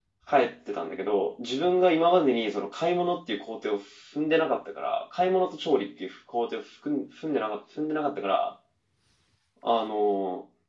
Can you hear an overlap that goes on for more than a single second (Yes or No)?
No